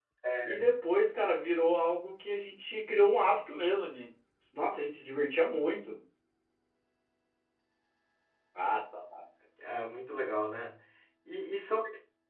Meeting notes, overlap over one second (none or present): none